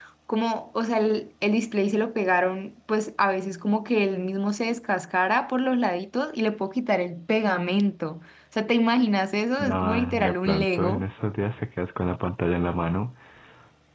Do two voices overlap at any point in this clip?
Yes, from 9.6 s

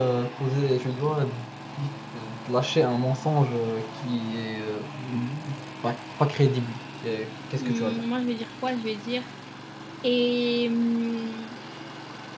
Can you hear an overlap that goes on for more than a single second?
No

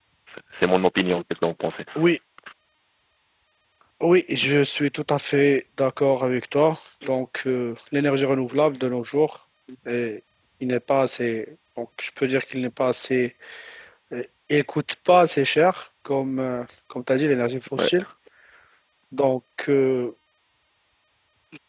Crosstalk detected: No

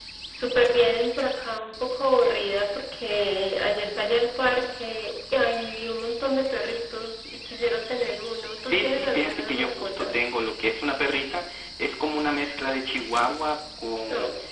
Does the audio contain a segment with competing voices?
Yes, from 8.6 s

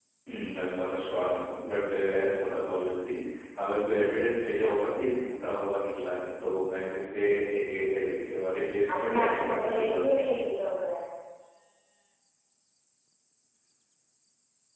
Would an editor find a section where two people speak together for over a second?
Yes, from 8.9 s

